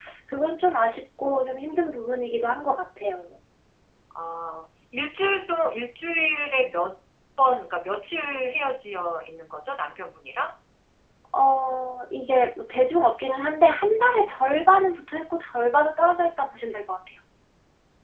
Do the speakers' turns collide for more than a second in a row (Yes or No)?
No